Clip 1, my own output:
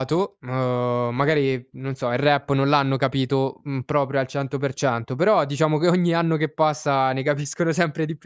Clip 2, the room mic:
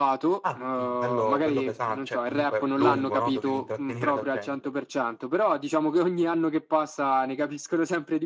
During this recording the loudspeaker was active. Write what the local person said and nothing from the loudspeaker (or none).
Ah, quindi bello bello pesan cioè, comunque lungo, no, dovevi intrattenere la gente.